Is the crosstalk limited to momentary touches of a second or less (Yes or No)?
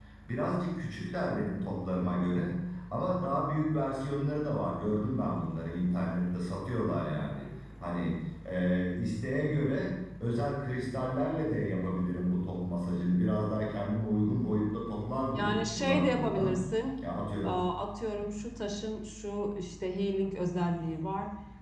No